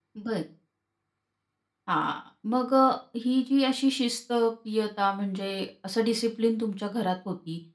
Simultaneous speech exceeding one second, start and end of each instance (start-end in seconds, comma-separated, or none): none